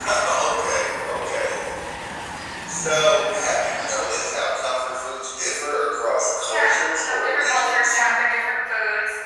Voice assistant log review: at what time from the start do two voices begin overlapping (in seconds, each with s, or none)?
6.5 s